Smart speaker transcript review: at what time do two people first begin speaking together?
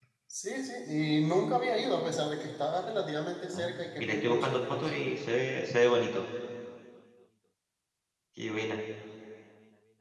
3.5 s

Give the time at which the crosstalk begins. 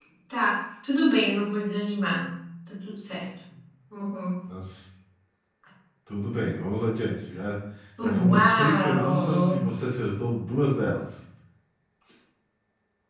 8.0 s

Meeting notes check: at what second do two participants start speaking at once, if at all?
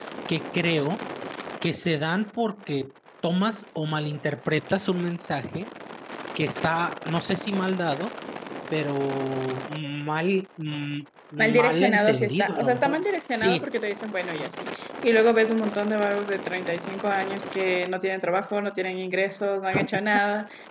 11.4 s

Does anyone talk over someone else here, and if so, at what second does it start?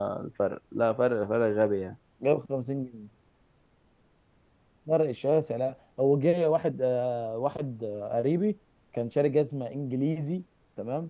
none

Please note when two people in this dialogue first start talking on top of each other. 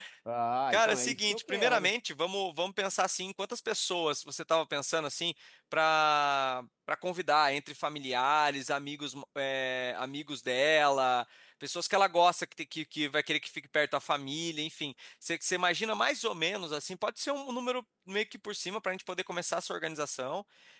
0.7 s

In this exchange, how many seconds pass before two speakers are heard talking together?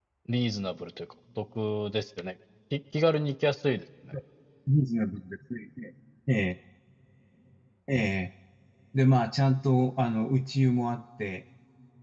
none

